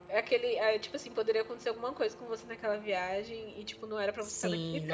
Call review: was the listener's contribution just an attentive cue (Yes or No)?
No